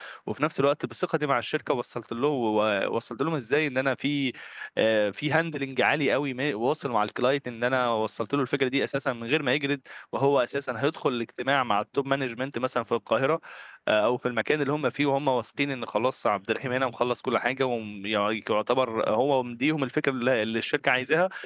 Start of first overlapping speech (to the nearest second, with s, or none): none